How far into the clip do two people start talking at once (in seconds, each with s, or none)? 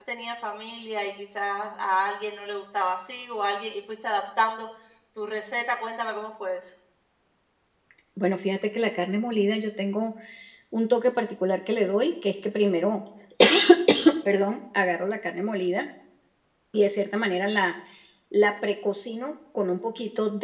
none